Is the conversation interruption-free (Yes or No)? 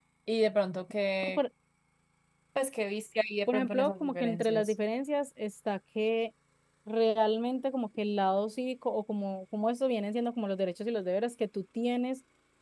No